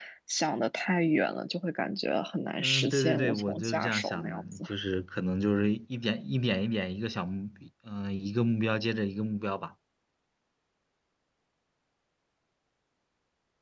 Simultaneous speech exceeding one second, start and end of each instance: 2.6-4.6

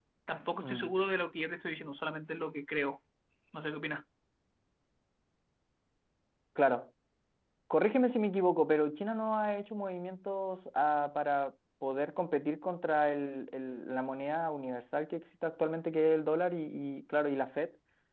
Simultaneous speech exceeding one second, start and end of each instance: none

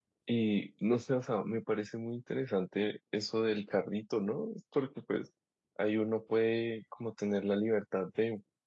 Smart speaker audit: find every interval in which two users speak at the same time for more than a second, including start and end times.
none

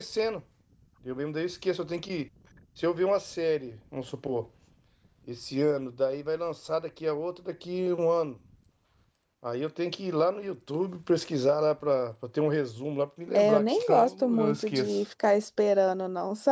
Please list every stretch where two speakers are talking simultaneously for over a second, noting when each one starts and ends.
13.3-15.0

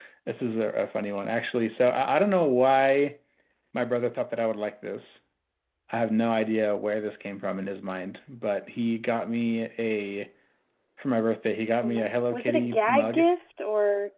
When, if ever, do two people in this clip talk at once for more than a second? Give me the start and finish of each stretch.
11.8-13.2

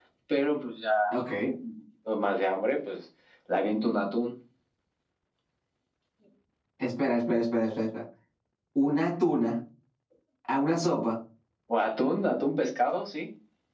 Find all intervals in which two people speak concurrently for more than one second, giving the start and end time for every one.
none

